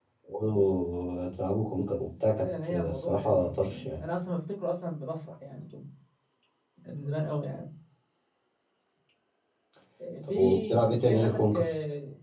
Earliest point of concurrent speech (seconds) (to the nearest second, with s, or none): 2 s